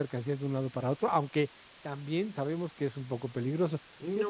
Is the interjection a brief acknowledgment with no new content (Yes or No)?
Yes